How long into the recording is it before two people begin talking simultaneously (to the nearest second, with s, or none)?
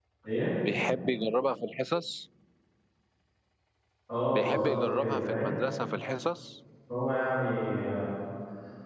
4 s